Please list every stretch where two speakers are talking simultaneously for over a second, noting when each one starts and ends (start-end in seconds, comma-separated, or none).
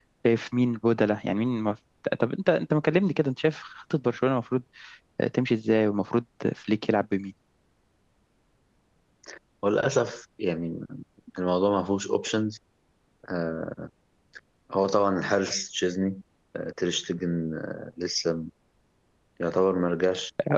none